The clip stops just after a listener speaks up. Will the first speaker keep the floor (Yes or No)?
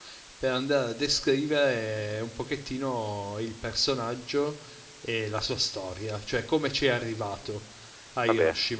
Yes